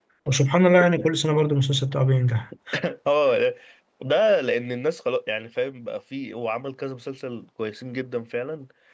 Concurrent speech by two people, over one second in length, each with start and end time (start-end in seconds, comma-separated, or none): none